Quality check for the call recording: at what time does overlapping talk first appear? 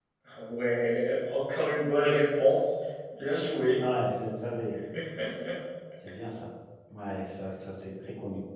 none

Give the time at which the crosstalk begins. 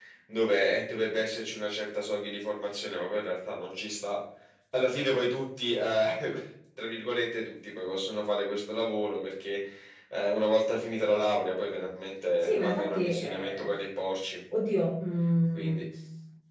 12.4 s

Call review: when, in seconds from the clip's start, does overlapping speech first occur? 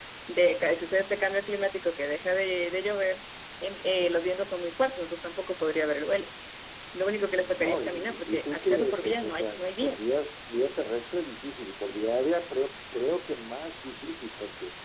7.4 s

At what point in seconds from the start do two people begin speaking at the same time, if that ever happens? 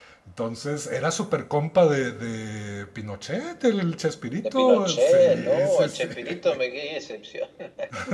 4.4 s

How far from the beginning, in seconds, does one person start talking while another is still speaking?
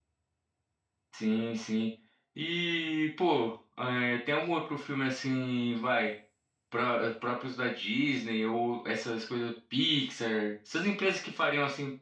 none

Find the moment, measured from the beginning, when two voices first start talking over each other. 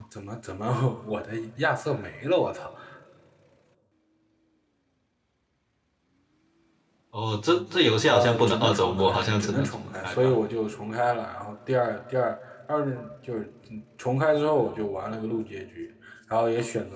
8.0 s

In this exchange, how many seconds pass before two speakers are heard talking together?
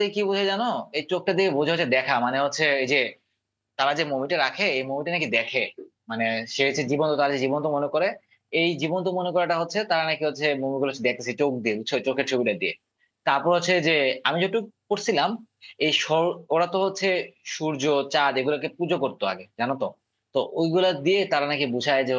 none

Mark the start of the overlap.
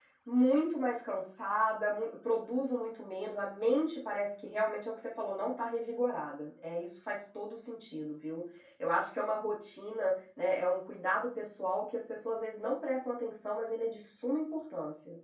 none

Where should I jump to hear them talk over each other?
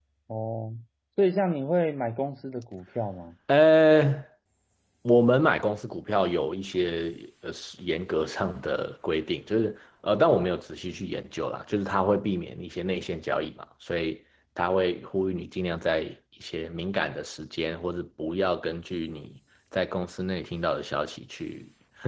none

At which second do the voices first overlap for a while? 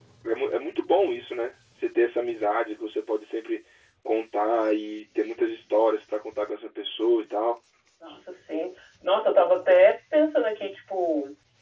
none

